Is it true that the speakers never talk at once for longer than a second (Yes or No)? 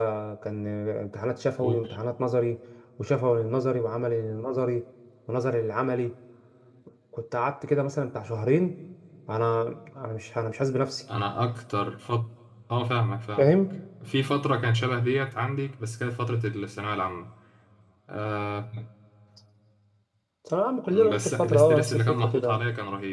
No